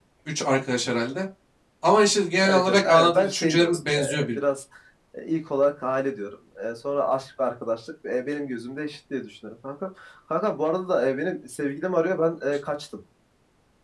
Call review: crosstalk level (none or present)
present